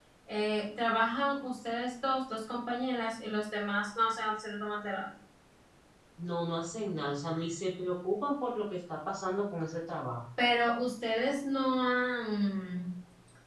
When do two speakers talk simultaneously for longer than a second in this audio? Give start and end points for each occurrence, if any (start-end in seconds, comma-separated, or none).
none